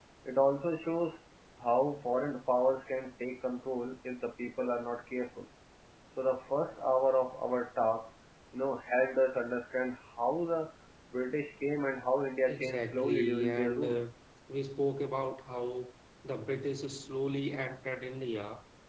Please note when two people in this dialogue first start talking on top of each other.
12 s

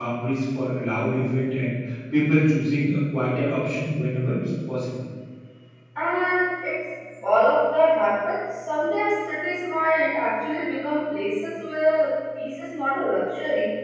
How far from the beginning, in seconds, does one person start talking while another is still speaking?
none

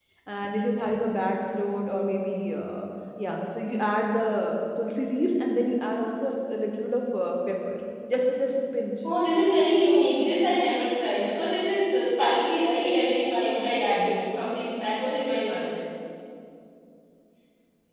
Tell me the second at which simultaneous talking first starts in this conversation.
none

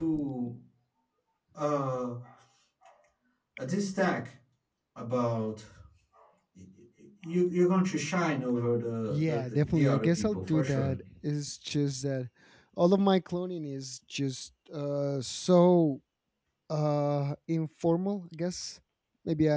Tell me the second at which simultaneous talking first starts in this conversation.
9 s

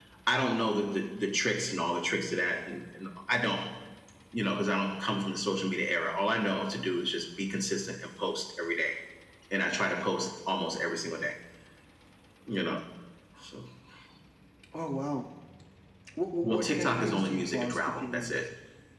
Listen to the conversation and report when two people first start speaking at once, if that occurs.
16 s

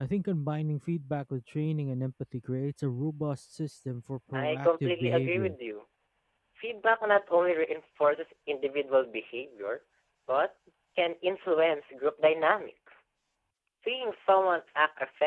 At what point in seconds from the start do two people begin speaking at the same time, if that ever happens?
4 s

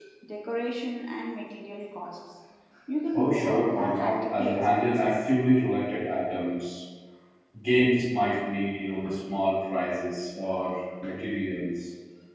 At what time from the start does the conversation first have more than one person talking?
3 s

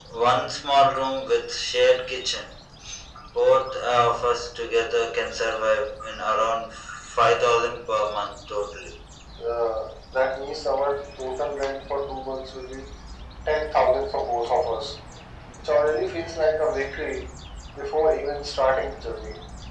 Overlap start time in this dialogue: none

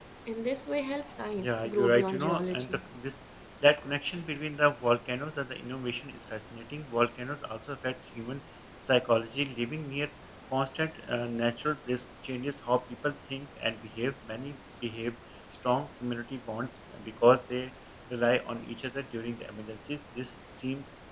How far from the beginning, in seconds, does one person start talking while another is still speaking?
1 s

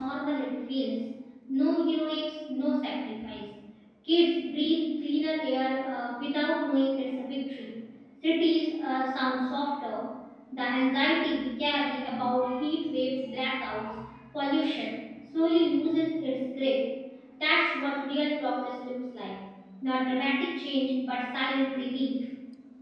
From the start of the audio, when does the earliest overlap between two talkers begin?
none

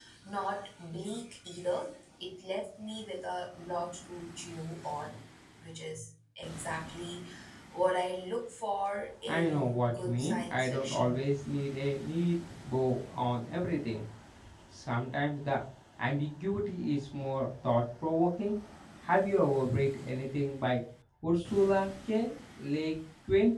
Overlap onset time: 9 s

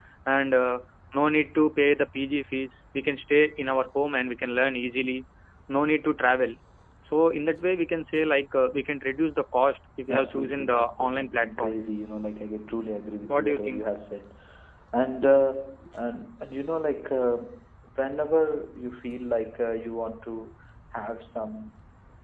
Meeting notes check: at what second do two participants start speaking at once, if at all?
10 s

